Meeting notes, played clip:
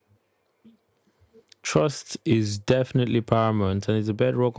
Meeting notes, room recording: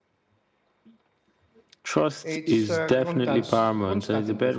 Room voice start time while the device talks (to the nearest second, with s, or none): 2 s